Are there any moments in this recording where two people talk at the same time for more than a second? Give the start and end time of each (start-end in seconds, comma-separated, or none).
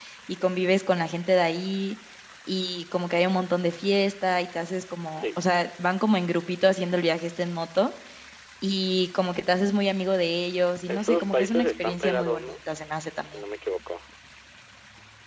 10.9-12.5